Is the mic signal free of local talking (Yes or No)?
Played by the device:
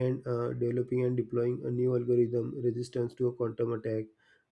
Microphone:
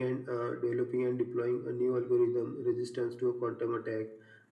Yes